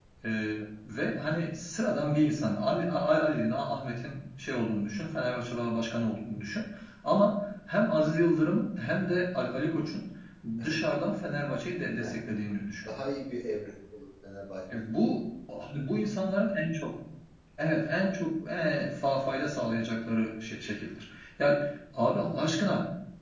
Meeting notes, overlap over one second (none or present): none